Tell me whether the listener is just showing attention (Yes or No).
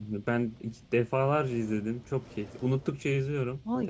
No